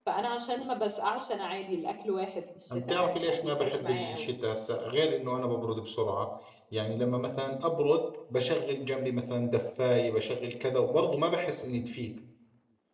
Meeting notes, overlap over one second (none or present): present